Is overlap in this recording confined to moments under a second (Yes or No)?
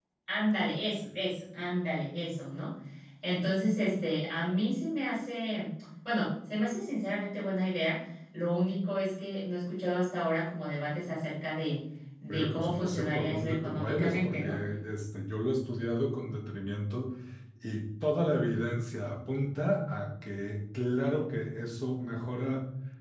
No